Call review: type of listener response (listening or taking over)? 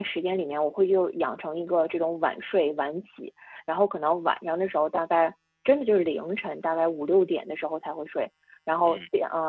listening